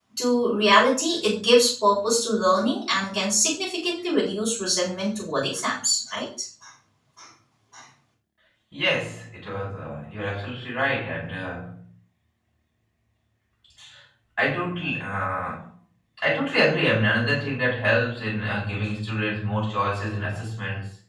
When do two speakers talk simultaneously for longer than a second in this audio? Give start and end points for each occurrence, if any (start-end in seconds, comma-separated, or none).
none